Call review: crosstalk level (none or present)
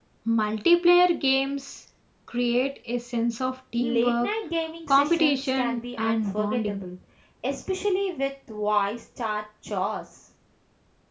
present